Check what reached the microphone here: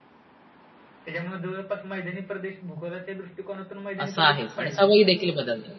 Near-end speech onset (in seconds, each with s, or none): 4.0 s